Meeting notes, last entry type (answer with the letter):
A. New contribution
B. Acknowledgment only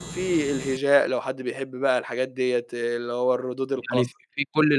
A